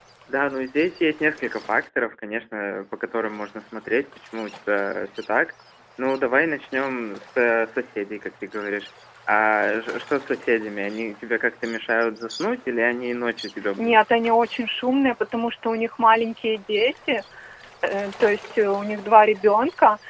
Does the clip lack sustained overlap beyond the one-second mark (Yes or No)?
Yes